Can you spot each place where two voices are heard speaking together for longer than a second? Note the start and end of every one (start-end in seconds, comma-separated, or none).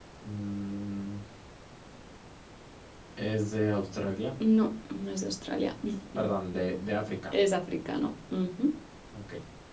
none